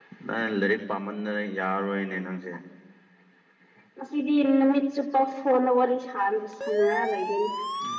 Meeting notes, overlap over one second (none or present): none